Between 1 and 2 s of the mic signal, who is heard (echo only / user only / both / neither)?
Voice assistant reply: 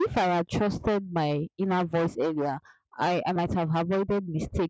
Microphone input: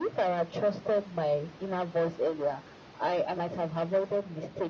echo only